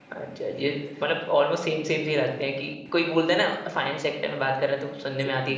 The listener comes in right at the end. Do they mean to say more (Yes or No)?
No